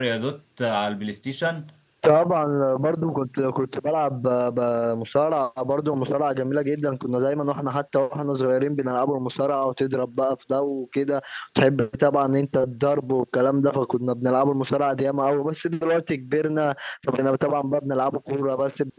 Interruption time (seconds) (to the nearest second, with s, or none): none